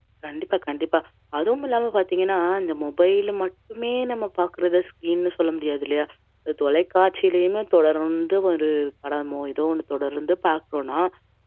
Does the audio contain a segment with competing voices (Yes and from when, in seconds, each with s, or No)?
No